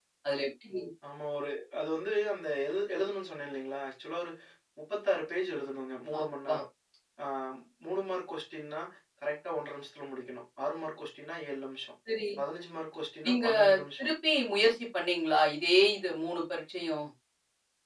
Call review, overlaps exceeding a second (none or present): none